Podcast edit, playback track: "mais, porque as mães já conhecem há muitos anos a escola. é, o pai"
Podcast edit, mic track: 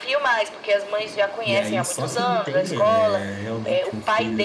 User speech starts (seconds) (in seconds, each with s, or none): 1.4 s